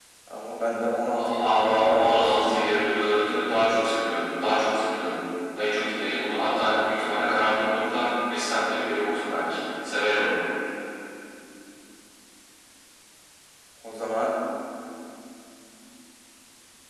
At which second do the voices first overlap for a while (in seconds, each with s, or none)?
1.4 s